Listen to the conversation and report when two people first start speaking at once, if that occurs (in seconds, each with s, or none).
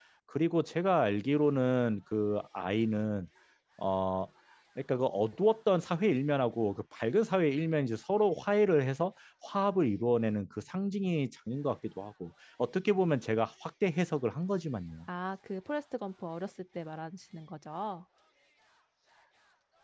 none